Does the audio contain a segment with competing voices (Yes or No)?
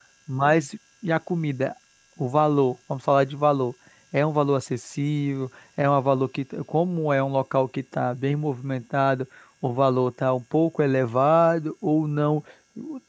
No